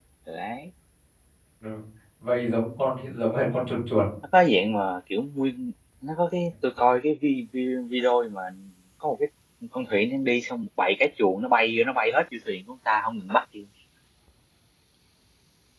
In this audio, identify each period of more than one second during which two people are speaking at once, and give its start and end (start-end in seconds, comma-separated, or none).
none